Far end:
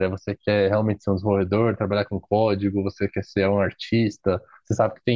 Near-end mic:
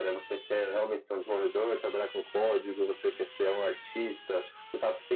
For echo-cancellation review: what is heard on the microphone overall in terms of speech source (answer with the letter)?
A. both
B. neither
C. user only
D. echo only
D